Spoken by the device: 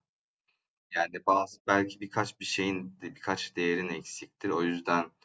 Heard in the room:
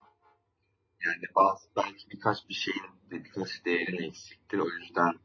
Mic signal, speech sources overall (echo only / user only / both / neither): echo only